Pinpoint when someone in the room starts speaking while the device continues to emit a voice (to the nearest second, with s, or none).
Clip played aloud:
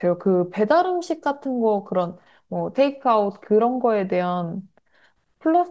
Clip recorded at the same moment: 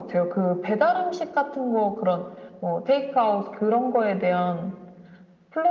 none